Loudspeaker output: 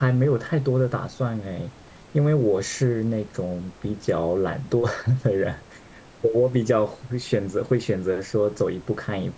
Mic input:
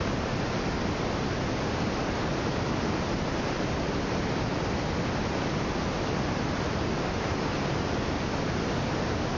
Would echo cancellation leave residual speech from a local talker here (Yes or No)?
No